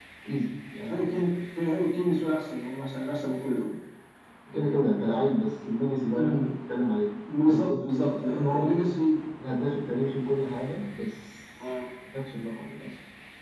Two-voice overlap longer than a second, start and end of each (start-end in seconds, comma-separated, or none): 7.5-8.7